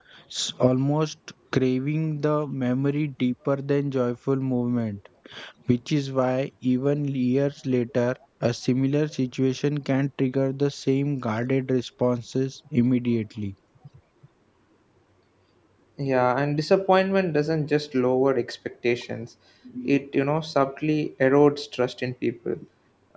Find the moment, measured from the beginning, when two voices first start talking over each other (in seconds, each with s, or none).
none